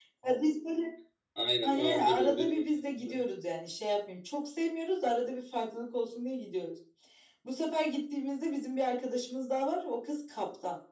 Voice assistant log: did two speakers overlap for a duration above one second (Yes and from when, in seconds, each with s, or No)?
Yes, from 1.6 s